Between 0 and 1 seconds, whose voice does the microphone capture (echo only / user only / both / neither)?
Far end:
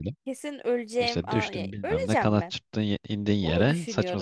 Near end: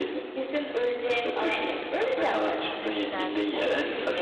echo only